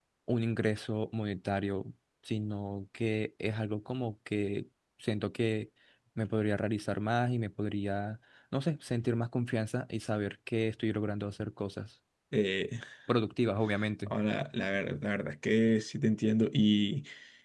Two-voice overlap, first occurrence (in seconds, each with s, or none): none